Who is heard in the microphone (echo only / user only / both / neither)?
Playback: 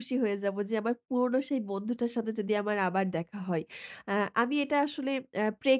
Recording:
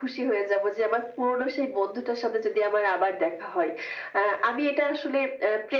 echo only